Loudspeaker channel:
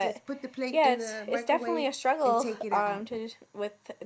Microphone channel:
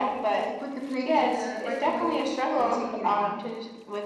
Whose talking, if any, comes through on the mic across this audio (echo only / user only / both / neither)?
echo only